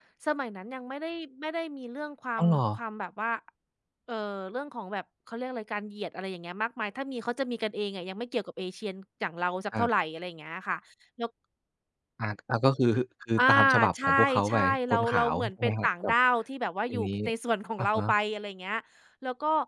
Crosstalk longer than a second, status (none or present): present